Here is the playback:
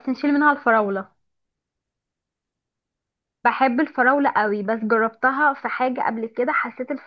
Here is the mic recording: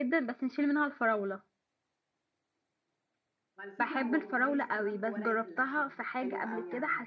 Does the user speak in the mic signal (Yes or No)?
Yes